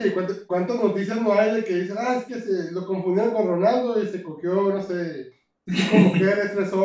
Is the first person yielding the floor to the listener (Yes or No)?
No